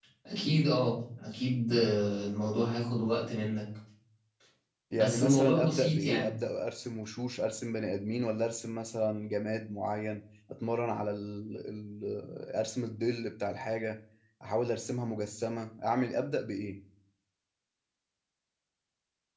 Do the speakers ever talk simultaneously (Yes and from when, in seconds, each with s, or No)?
Yes, from 4.9 s